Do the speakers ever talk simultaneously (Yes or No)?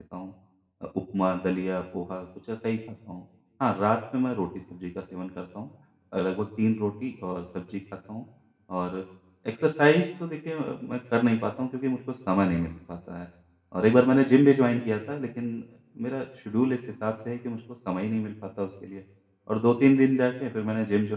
No